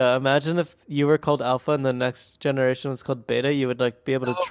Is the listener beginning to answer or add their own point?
Yes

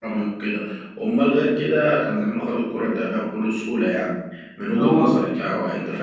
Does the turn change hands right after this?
No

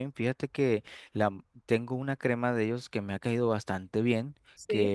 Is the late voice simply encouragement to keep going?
Yes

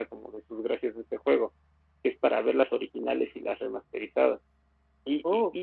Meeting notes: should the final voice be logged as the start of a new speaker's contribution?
No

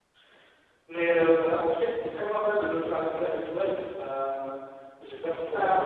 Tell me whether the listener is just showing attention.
Yes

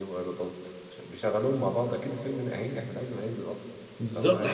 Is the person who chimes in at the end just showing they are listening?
No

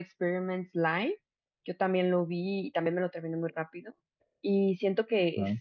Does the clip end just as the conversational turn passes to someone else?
No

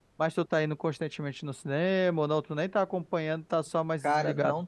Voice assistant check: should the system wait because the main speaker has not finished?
No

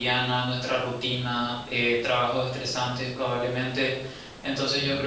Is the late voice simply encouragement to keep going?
Yes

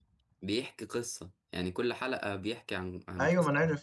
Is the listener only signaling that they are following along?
No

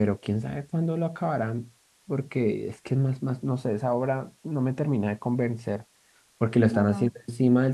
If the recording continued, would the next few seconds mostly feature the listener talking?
No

